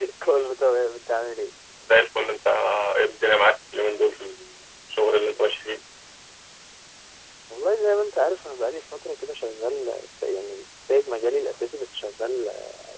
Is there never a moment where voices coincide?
Yes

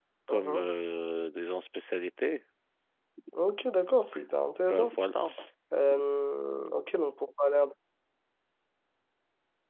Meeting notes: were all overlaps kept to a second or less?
Yes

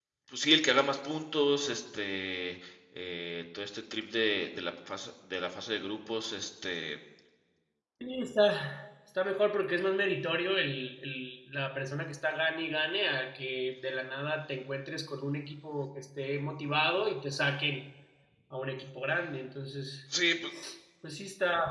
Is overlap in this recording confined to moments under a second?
Yes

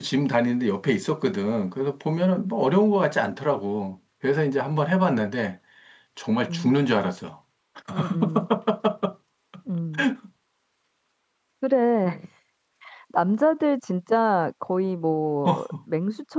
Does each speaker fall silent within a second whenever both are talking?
Yes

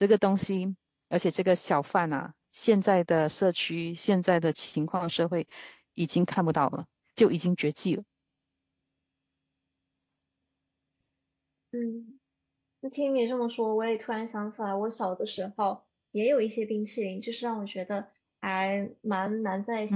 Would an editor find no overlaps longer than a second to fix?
Yes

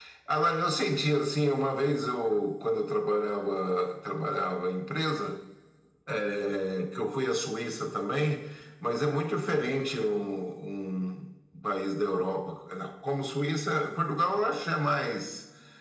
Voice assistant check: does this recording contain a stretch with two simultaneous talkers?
No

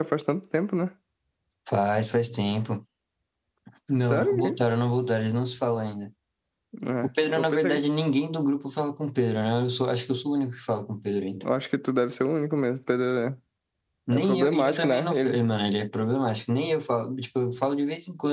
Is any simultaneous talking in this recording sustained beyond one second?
Yes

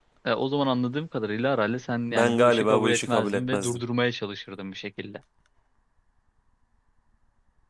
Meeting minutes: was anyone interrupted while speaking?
Yes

